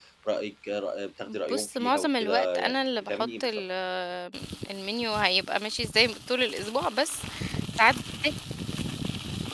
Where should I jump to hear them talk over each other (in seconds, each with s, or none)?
1.3 s